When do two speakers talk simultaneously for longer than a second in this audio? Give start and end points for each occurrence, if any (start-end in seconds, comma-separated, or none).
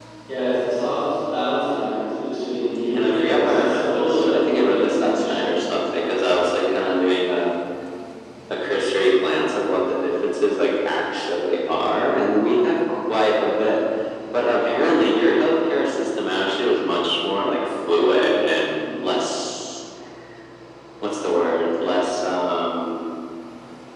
2.9-5.5